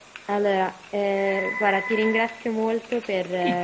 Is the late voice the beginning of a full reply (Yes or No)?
No